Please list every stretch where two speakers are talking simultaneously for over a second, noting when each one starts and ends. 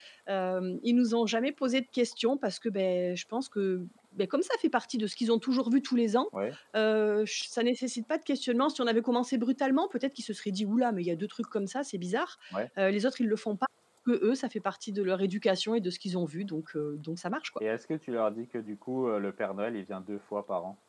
none

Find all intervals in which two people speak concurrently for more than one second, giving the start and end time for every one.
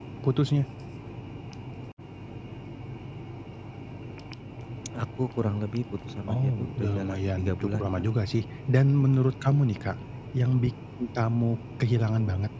6.3-7.9

